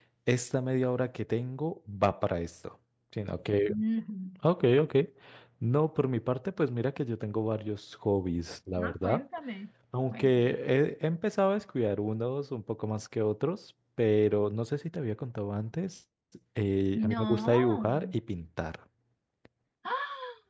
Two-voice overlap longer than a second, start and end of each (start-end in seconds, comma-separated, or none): 16.9-18.1